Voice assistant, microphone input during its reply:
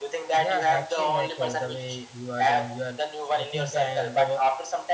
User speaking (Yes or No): Yes